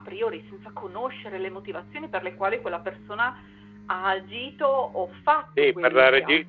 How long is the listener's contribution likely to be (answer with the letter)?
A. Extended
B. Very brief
A